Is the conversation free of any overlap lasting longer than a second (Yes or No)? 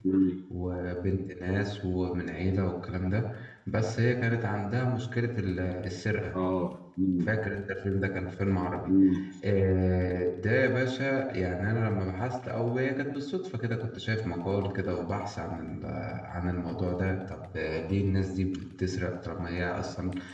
Yes